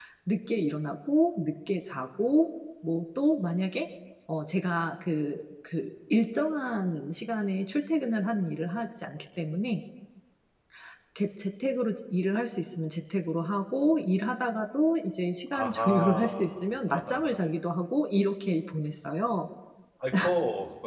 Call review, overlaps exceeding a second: present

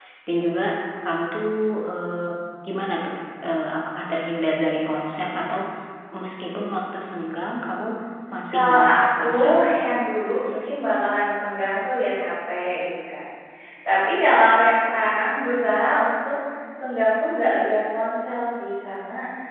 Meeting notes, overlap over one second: present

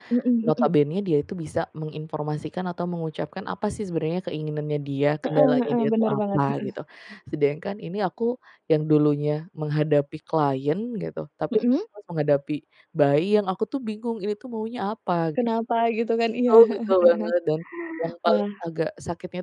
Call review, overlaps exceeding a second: present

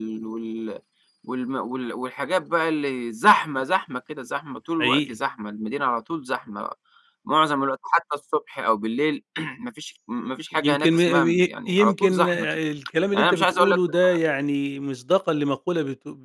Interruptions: present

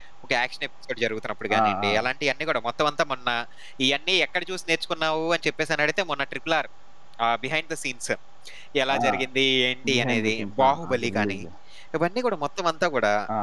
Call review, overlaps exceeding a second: present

